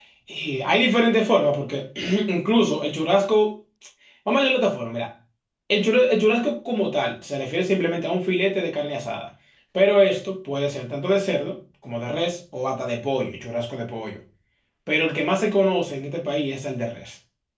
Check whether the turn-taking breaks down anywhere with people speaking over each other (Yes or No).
No